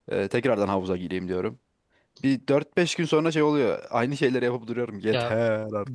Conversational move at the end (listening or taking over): taking over